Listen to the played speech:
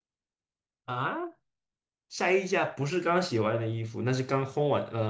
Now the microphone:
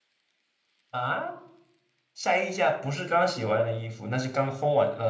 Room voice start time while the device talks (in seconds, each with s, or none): none